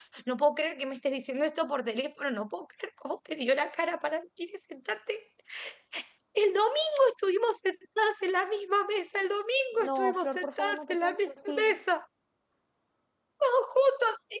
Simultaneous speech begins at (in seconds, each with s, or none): 9.7 s